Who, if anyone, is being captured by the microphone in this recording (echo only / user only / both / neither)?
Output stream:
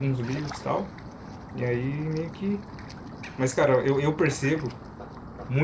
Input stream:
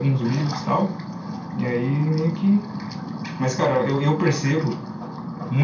echo only